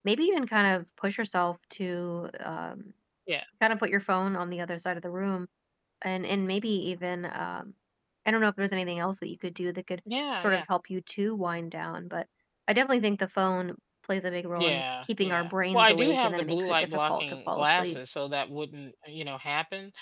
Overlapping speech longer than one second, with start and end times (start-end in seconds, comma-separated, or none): 14.6-18.0